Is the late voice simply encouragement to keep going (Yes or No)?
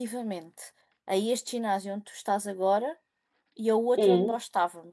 Yes